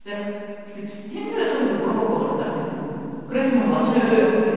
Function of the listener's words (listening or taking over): taking over